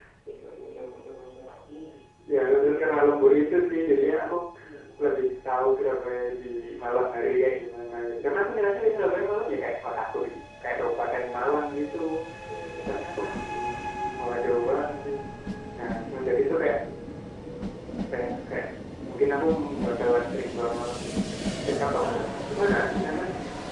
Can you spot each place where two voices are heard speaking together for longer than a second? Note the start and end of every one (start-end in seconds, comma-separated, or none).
2.4-4.1